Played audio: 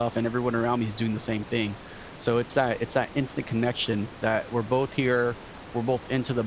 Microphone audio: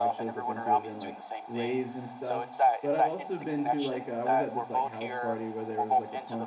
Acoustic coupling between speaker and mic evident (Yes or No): Yes